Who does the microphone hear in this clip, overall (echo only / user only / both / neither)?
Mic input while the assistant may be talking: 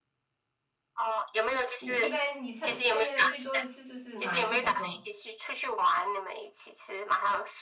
both